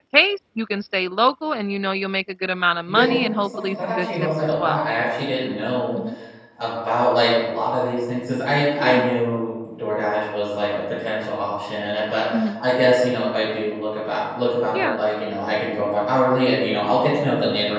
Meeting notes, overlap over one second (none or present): present